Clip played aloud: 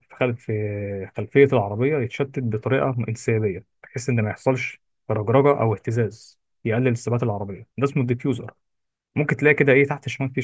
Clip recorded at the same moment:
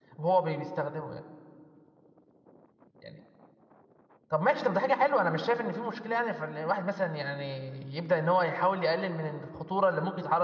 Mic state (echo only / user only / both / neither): user only